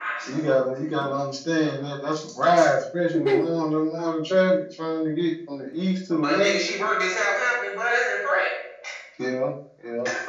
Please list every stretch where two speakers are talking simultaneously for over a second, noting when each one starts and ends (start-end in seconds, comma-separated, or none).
none